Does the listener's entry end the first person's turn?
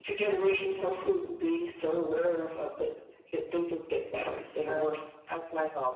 Yes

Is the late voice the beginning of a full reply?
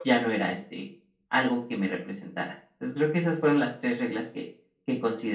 Yes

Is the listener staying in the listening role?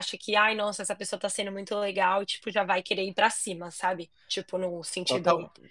No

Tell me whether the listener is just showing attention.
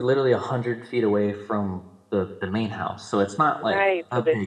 No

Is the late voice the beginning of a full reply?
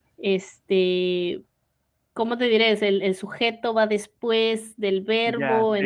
Yes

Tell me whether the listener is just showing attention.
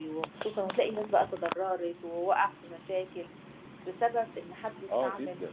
Yes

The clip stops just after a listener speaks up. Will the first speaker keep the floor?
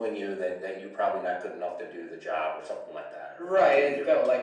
No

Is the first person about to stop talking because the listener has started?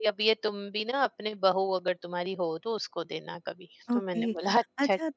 Yes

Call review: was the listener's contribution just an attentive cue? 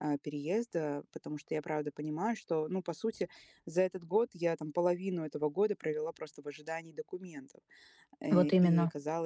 Yes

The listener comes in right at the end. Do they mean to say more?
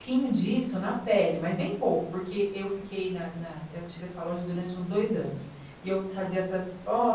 No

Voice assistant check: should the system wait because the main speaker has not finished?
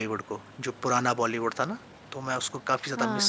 No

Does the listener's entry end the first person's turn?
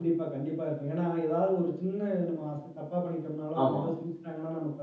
No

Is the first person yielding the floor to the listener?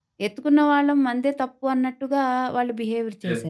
Yes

